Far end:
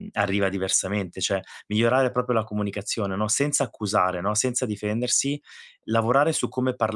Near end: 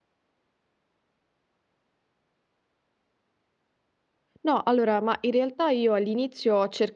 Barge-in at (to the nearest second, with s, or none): 4 s